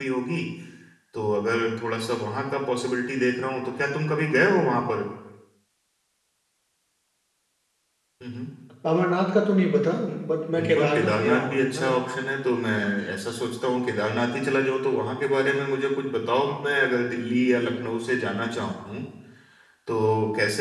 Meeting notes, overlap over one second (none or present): present